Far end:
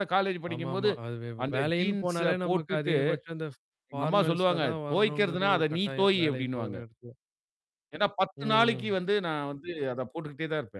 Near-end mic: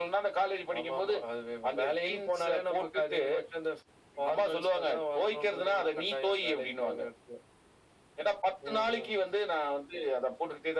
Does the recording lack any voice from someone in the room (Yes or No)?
Yes